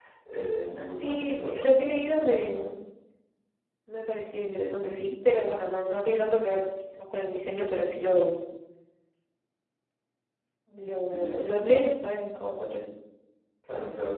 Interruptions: present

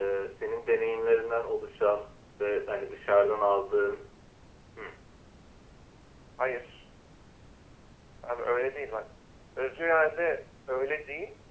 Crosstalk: none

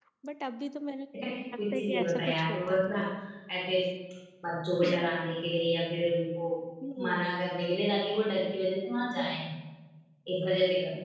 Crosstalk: present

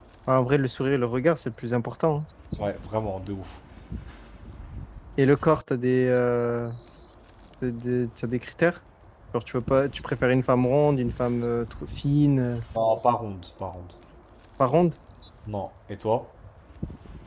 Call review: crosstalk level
none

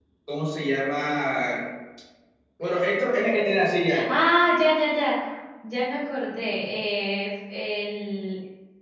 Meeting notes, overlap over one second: none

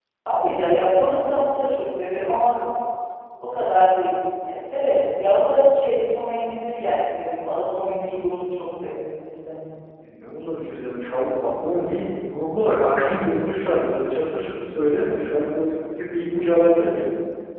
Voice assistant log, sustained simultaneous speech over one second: none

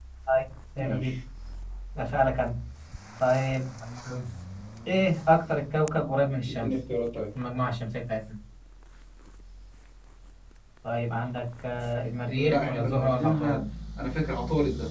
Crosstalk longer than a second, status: present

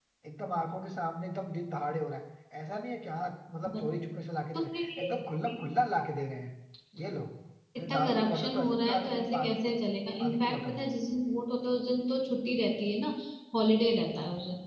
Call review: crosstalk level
present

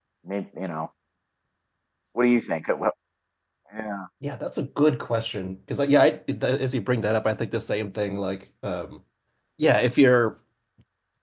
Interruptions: none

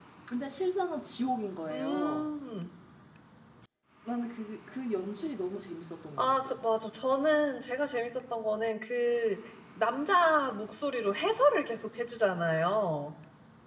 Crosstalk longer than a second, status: none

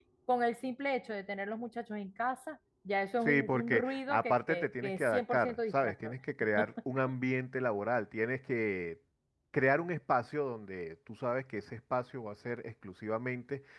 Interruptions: present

